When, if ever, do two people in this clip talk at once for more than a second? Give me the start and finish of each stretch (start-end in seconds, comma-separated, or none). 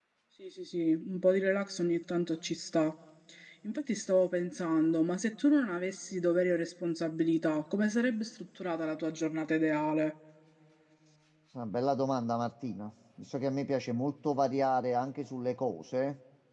none